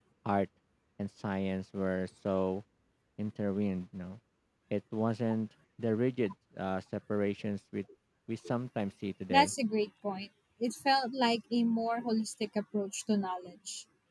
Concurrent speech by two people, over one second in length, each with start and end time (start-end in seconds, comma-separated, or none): none